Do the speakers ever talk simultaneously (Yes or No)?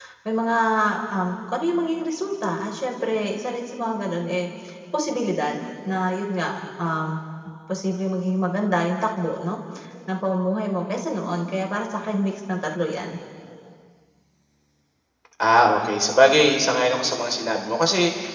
No